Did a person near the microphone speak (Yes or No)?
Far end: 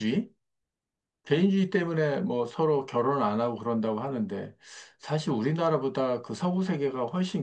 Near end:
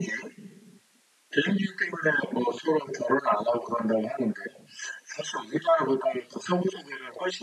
No